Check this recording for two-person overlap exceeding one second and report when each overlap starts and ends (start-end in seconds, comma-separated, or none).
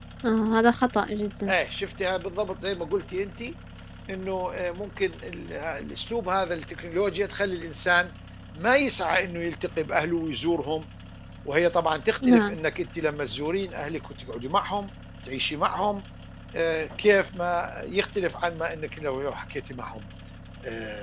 none